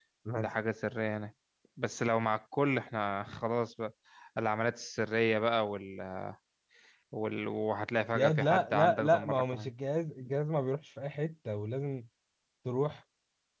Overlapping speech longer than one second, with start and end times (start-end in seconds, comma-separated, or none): 8.2-9.7